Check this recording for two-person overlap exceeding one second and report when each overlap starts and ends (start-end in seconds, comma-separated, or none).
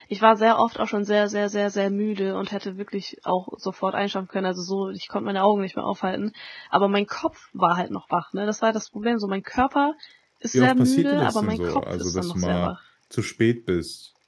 10.5-12.7